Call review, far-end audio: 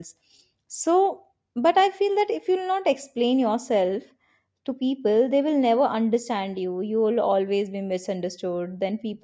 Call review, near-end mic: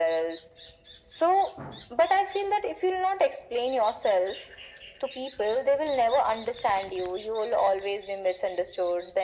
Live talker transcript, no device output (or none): none